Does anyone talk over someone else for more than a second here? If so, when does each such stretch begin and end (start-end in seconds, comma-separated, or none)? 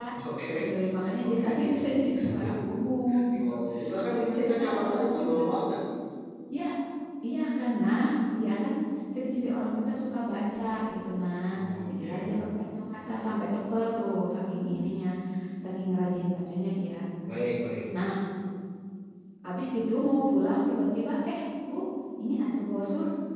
4.1-5.5